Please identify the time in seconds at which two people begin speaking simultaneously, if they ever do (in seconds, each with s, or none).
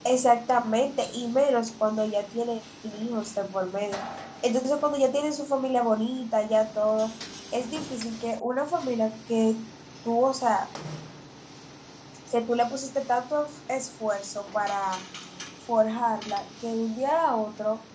none